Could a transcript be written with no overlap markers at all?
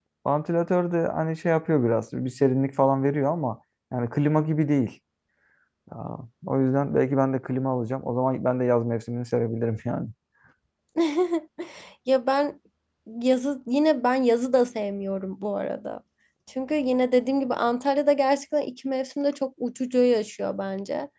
Yes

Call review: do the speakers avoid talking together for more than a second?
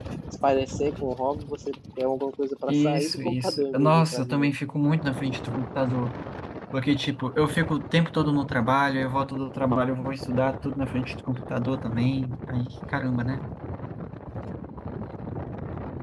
No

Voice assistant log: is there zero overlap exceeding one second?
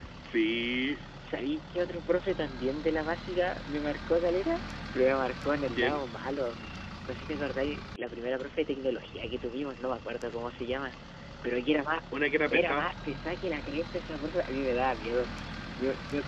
Yes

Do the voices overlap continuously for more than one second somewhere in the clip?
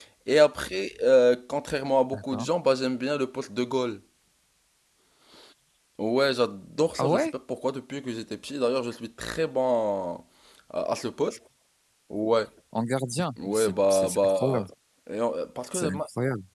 Yes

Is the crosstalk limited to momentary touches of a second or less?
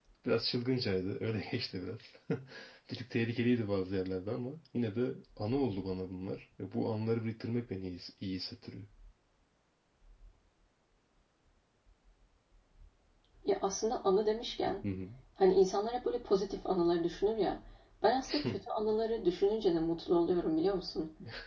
Yes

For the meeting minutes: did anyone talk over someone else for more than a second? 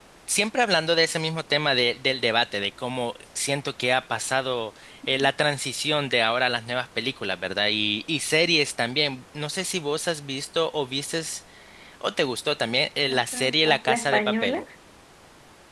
Yes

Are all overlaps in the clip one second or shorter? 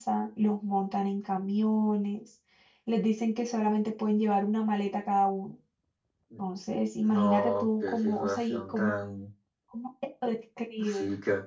No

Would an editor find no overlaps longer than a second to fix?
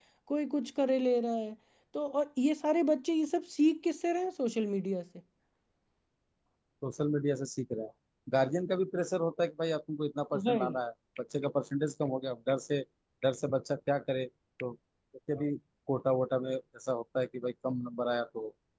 Yes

